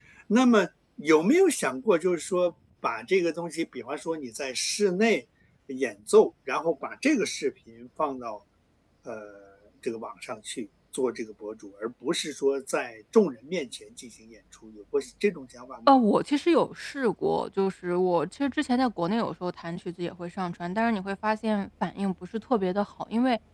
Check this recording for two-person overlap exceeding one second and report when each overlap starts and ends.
none

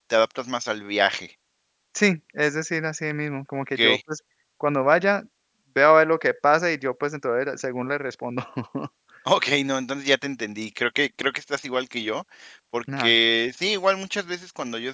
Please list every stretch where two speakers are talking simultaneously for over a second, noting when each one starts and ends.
none

